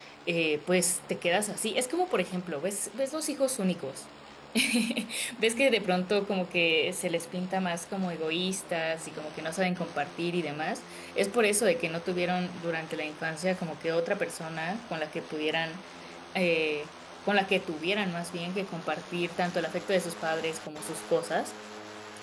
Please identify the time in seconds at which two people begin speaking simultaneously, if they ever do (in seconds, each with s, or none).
none